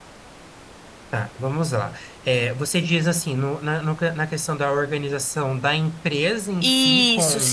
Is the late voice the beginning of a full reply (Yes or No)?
Yes